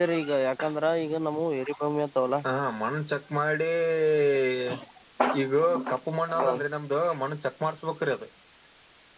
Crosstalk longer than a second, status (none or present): none